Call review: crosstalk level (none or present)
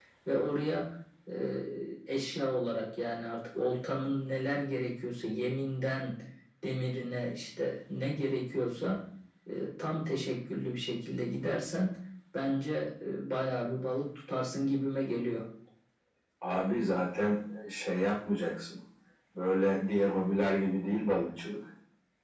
none